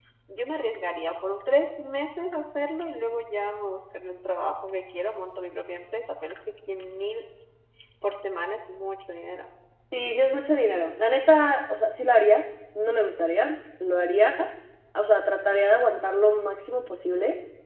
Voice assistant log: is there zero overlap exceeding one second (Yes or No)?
Yes